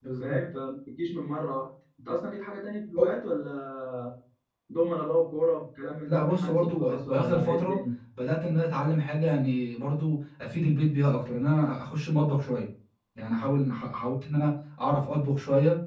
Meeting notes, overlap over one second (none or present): present